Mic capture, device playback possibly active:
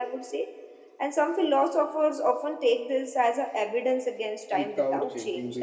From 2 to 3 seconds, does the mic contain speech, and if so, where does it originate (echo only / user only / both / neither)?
echo only